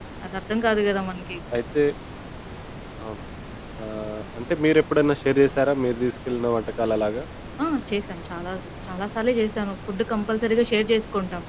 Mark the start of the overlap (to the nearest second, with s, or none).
none